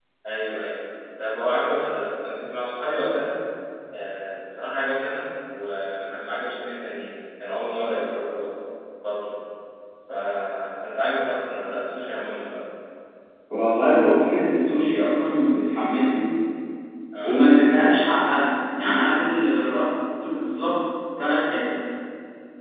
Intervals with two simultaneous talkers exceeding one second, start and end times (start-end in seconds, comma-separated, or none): none